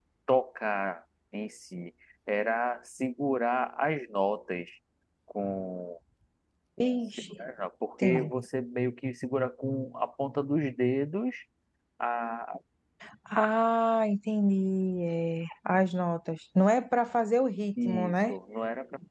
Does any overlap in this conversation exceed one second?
No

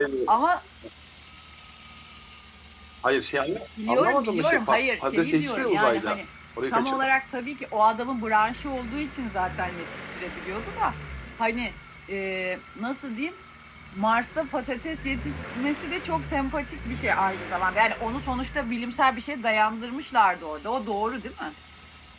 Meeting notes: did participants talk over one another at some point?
Yes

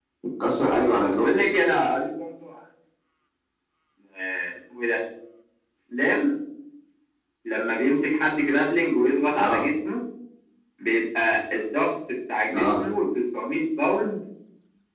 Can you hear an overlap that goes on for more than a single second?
No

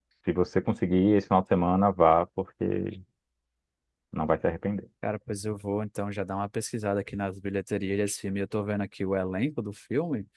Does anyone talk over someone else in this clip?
No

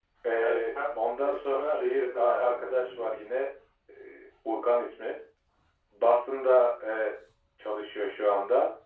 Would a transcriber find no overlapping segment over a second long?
No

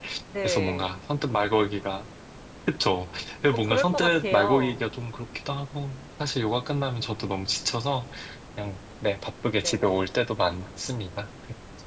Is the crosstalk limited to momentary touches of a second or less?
No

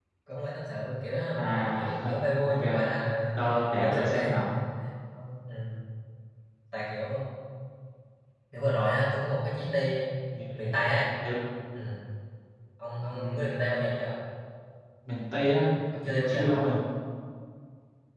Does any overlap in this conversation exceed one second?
Yes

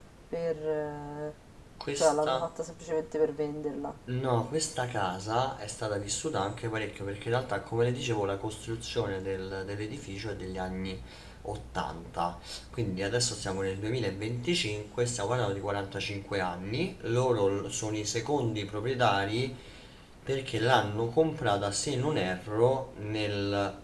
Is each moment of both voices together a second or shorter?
Yes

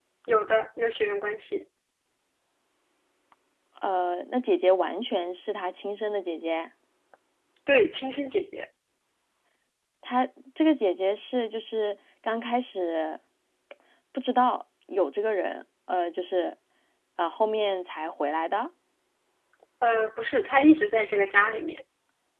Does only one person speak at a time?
Yes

